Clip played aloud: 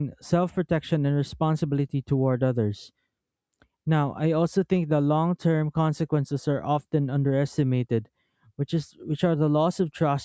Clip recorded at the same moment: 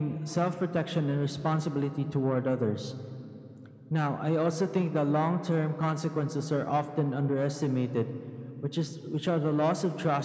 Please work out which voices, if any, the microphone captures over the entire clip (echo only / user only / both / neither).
echo only